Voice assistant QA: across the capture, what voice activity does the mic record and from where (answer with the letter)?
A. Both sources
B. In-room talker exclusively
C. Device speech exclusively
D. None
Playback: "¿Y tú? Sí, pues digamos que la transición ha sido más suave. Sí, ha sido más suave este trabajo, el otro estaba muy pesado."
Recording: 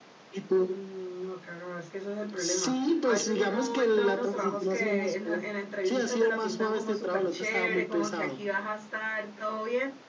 A